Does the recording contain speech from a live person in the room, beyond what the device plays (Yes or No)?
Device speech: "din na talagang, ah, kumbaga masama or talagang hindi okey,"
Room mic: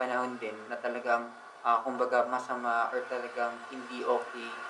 No